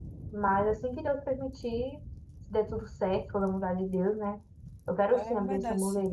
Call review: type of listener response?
taking over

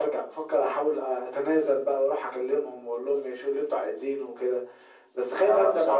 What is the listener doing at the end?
taking over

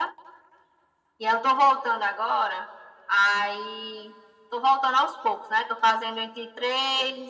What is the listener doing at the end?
listening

